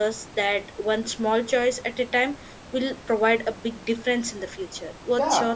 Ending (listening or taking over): taking over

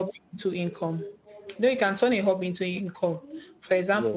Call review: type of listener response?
listening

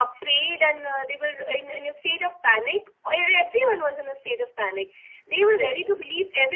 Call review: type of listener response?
listening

